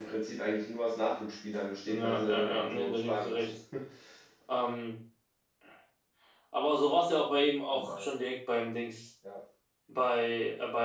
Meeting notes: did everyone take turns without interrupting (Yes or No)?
No